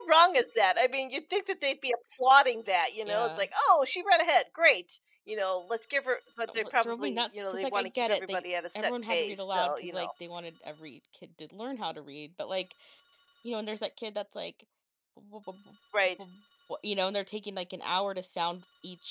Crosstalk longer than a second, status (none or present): present